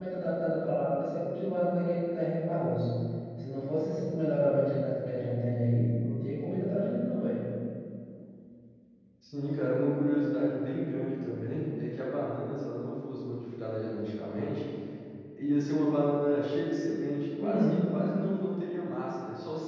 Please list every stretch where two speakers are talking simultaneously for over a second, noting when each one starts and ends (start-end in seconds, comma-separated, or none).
none